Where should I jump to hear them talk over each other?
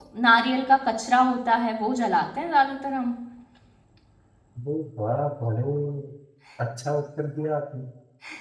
none

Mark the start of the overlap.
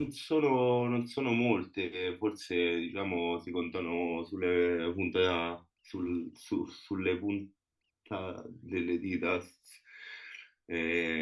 none

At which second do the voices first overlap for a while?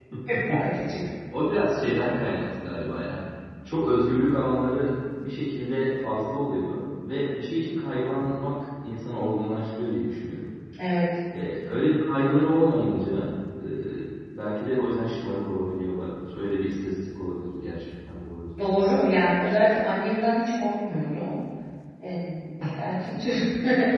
none

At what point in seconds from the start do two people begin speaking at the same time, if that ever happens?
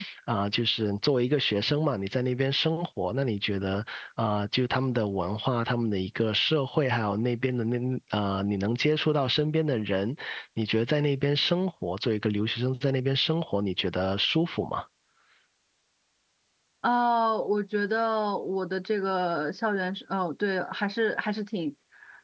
none

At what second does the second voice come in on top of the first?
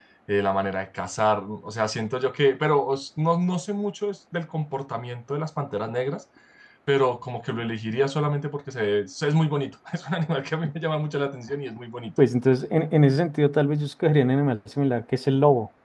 none

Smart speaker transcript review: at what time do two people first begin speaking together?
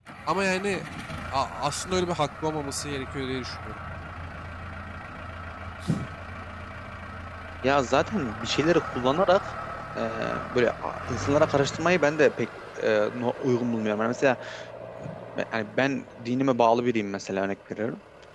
none

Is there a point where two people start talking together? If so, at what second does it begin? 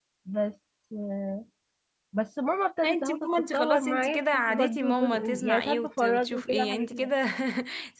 2.8 s

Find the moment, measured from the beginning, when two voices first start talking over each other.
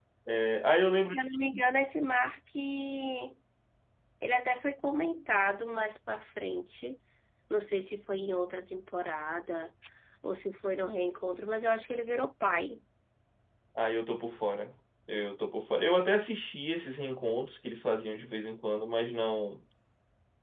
none

